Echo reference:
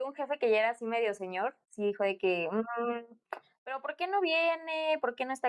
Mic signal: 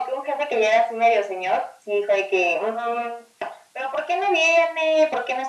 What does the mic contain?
echo only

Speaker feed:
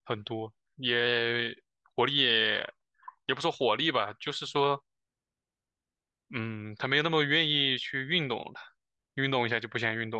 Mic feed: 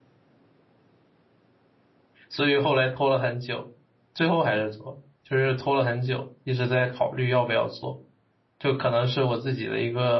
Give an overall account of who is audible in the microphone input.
user only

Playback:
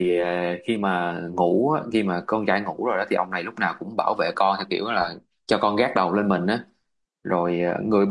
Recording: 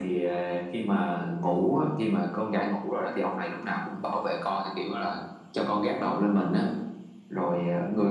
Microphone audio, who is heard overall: echo only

